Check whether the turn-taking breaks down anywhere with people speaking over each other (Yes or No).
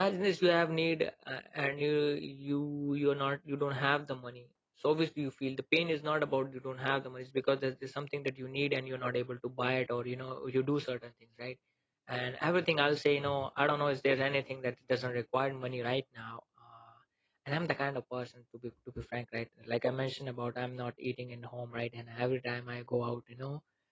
No